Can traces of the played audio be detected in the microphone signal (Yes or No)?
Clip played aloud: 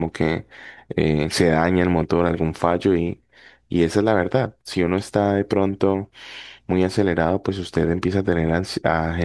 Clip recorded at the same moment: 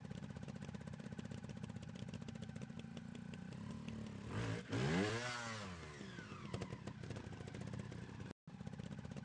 No